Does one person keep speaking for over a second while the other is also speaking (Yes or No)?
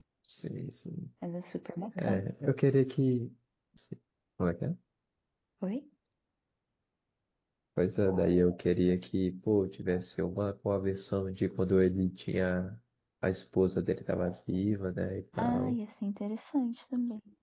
No